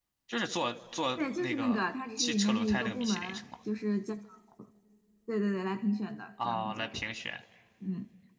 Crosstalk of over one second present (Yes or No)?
Yes